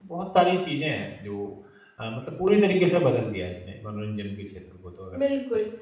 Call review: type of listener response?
taking over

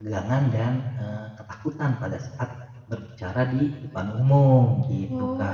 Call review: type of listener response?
taking over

